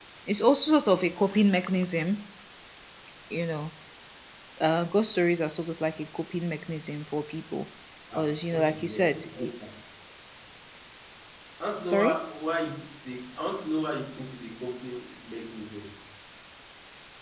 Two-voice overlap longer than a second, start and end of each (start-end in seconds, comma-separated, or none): 8.2-9.5